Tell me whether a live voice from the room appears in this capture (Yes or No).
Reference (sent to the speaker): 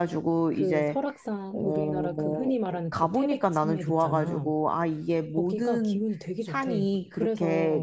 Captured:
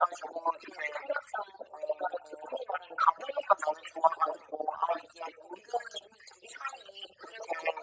No